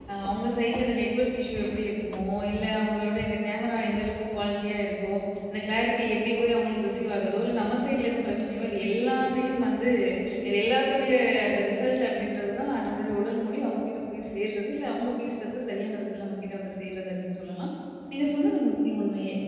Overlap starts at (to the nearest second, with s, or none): none